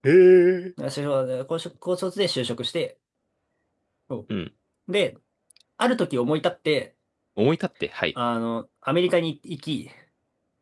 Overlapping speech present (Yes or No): No